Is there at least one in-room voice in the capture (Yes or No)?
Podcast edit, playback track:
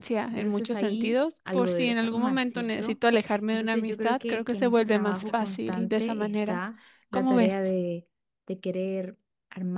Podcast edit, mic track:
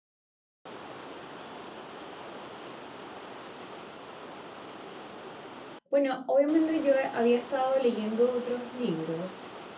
Yes